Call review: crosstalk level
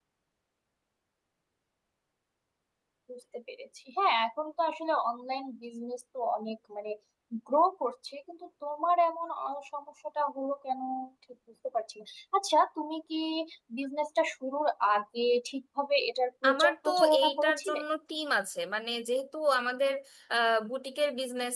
present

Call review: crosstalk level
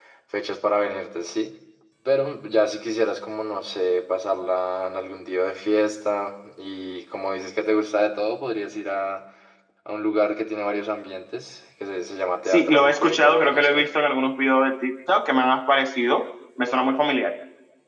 present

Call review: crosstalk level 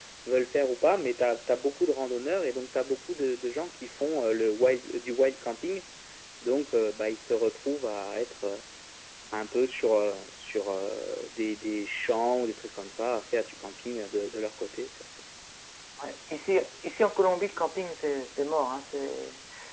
none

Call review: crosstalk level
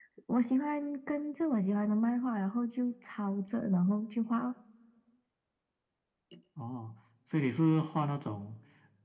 none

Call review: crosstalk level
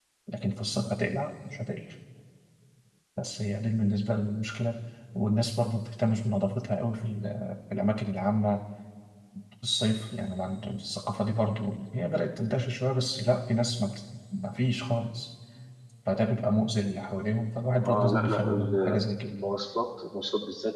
present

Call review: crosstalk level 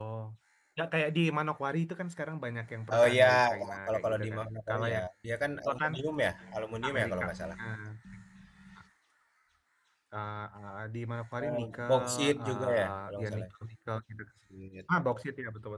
present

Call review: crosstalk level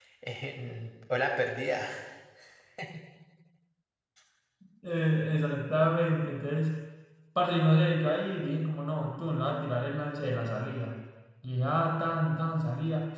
none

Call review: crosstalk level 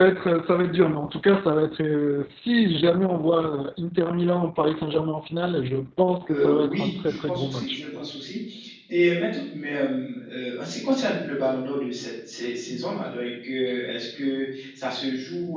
present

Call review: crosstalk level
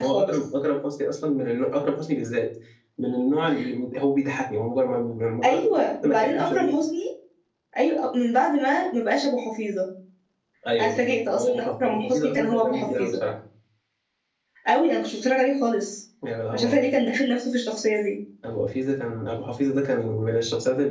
present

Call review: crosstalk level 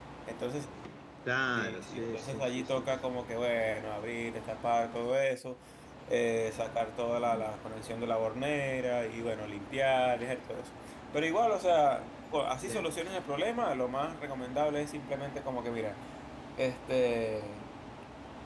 present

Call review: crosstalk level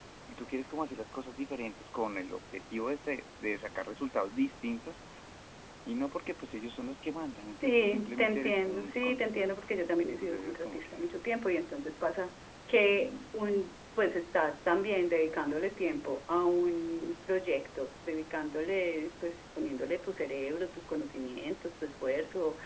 present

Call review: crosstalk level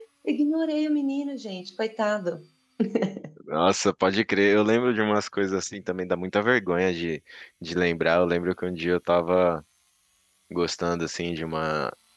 none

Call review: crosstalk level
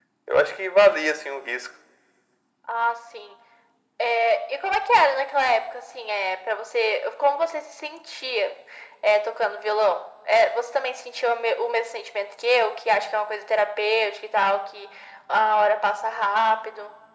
none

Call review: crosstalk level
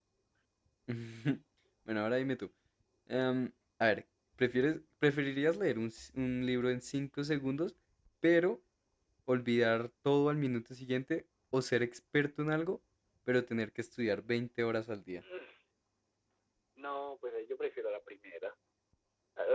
none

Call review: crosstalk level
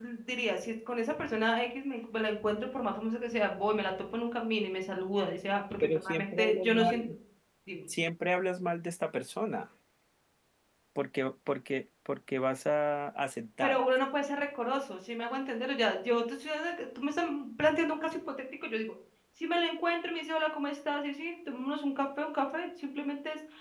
present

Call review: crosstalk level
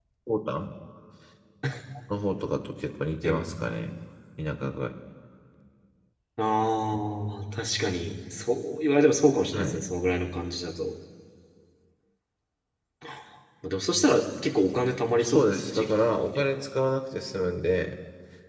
present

